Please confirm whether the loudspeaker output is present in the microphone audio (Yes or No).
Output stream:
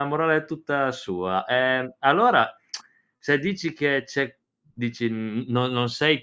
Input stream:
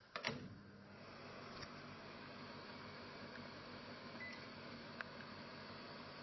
No